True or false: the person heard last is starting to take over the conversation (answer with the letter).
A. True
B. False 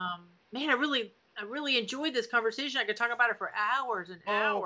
A